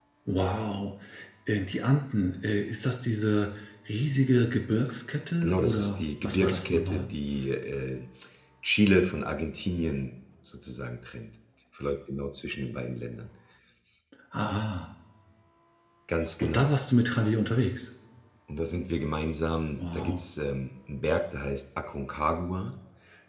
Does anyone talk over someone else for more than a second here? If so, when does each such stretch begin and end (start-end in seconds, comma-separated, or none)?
5.4-7.1